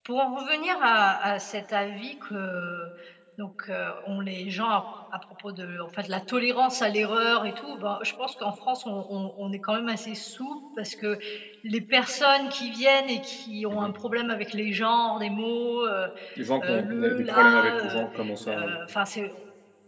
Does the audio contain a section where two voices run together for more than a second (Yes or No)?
Yes